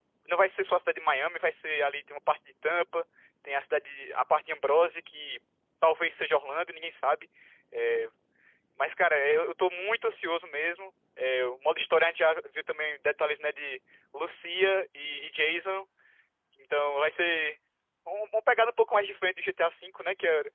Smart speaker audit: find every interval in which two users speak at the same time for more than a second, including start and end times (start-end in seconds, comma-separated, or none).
none